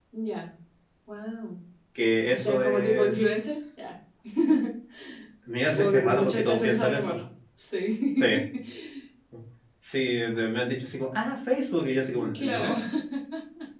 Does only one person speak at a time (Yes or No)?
No